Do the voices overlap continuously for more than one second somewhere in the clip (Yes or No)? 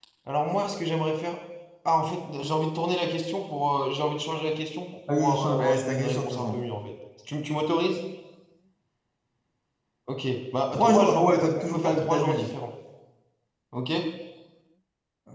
Yes